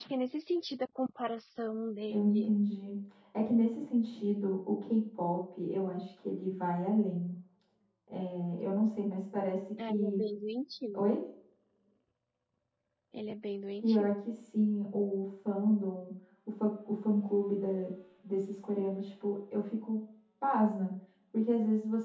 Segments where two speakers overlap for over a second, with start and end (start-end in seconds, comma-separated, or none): none